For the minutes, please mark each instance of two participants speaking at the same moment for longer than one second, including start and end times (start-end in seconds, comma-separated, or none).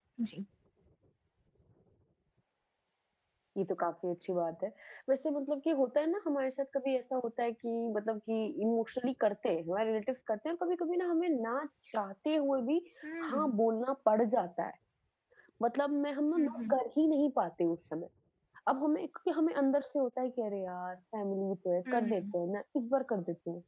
none